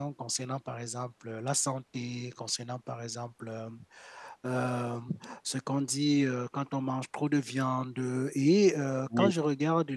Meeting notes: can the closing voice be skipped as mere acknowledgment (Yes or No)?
Yes